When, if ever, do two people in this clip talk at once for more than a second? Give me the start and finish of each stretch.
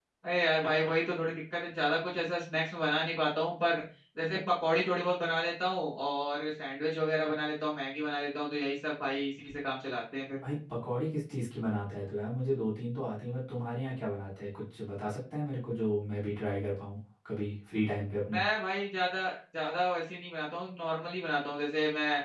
none

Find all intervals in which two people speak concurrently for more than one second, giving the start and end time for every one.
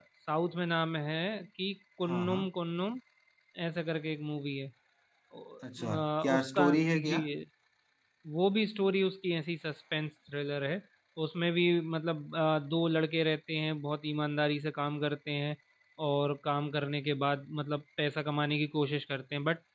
5.9-7.2

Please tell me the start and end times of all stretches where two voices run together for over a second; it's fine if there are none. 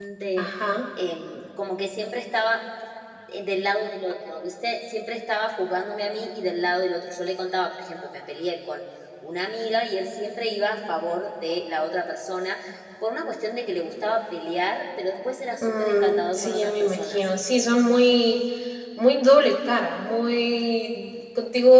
15.6-17.3

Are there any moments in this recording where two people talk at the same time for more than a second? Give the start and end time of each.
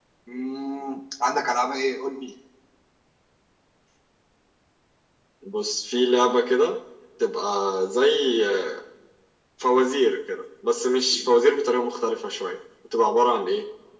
none

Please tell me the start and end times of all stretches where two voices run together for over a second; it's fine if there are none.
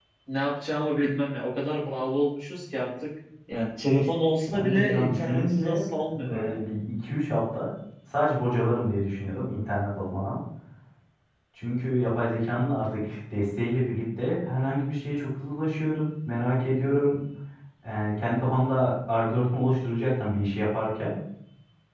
4.5-6.6

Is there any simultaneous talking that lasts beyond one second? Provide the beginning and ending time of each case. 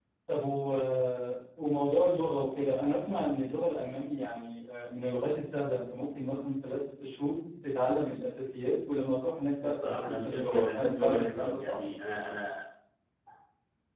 9.6-11.8

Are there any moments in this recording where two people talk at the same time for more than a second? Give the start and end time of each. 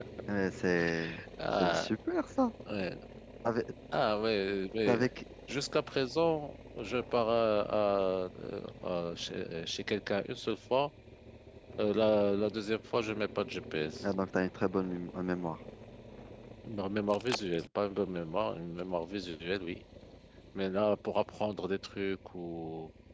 none

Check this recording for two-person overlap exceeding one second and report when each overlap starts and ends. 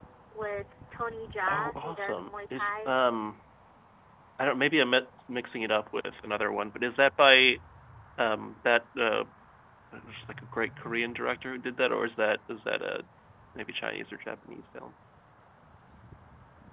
1.5-2.9

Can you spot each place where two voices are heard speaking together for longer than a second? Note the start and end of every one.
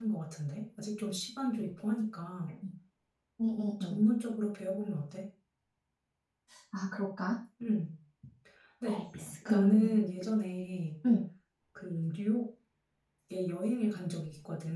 none

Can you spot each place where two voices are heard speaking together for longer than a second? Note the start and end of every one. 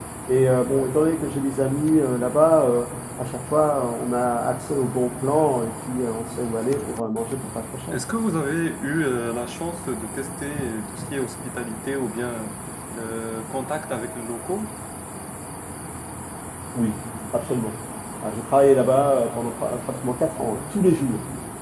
none

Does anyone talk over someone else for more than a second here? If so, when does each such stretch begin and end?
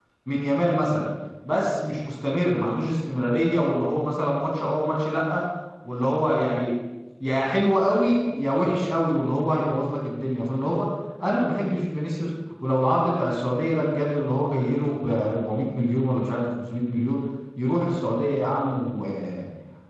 none

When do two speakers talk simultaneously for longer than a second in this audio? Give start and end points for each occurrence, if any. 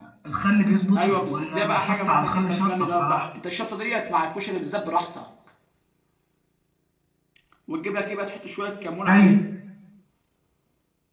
1.0-3.3

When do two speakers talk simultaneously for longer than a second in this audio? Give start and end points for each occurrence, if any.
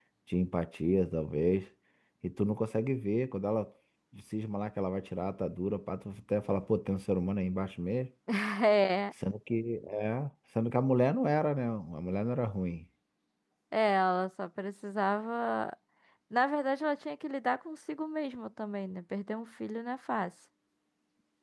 none

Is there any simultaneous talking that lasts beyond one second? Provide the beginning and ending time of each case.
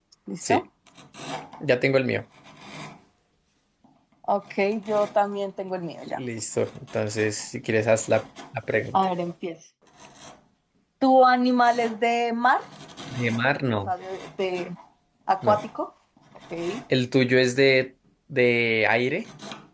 none

